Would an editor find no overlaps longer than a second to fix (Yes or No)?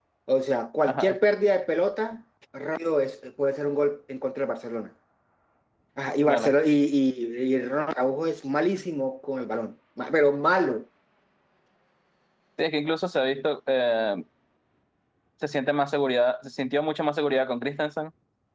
Yes